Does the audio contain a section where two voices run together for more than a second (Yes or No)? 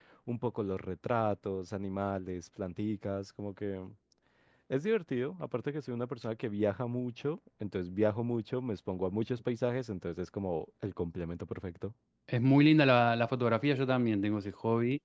No